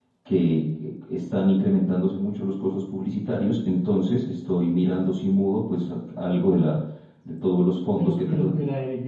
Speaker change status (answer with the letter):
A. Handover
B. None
A